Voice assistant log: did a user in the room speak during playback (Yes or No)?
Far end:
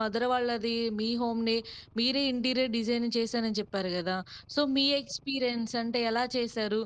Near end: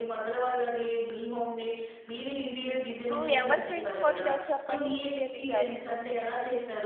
Yes